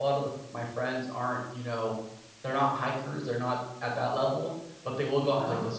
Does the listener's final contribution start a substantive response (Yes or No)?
No